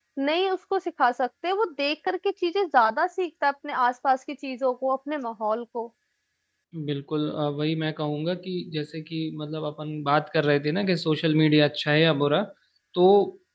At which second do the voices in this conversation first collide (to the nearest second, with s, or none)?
none